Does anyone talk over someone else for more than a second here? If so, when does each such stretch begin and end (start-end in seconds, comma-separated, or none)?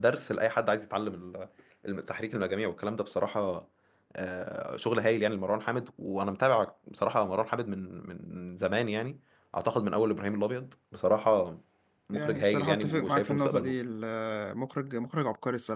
12.1-13.8